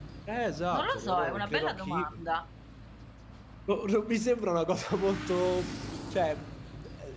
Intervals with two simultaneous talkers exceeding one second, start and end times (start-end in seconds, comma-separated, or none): 0.7-2.1